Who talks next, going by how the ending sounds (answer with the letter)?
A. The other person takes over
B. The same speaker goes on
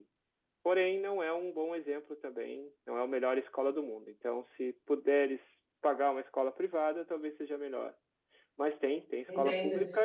A